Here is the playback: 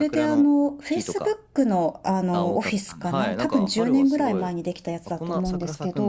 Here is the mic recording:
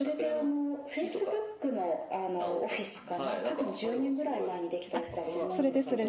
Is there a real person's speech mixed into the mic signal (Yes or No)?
Yes